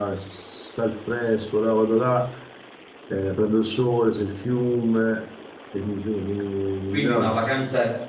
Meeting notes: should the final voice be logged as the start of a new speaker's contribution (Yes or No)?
Yes